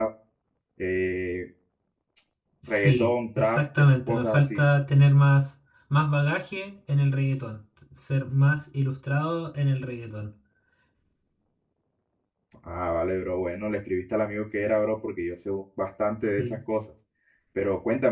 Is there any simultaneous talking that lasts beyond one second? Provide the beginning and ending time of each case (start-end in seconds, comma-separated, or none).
2.8-4.6